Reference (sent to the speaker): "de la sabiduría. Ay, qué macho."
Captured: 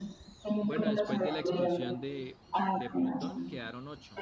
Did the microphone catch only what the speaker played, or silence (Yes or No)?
No